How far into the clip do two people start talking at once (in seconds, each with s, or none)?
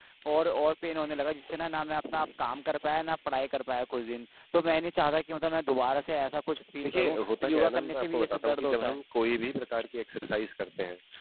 6.8 s